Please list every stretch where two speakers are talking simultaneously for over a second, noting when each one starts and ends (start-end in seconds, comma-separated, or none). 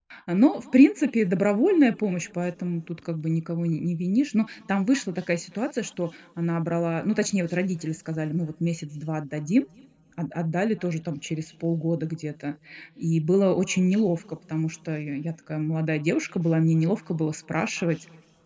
none